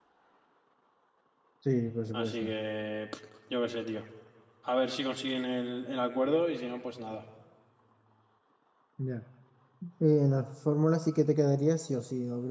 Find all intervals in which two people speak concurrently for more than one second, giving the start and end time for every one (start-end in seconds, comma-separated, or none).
none